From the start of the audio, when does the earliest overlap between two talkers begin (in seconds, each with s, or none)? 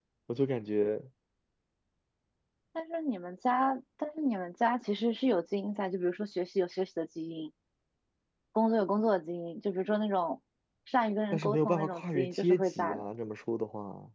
11.3 s